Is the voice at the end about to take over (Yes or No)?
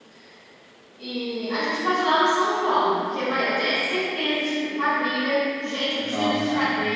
No